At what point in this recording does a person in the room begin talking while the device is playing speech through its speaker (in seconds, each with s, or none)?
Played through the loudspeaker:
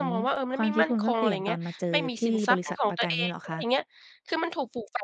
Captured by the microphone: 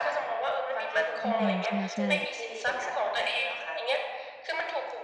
1.2 s